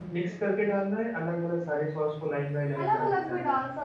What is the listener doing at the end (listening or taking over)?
taking over